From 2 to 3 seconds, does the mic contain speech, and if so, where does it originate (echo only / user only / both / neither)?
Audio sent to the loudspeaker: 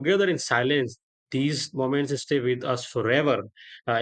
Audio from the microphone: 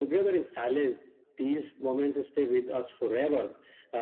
echo only